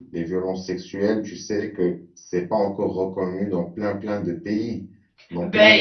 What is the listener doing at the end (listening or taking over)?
taking over